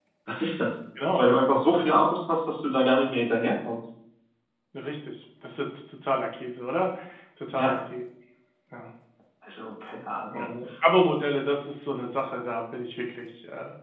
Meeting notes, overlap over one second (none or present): none